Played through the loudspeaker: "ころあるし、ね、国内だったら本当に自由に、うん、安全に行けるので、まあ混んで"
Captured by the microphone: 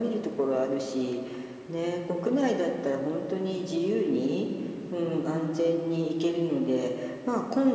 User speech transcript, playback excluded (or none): none